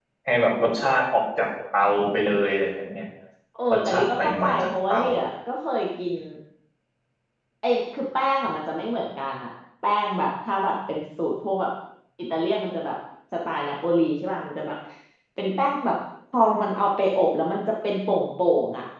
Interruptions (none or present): present